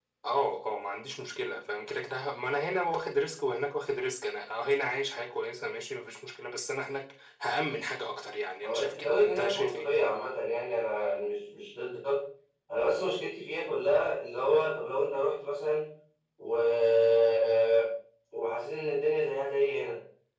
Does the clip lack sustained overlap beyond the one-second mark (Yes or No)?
No